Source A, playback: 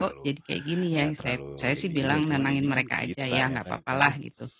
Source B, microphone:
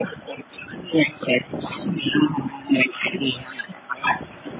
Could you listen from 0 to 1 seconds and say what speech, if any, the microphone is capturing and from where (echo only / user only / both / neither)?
echo only